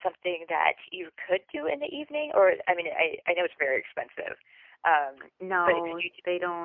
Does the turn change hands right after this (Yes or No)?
Yes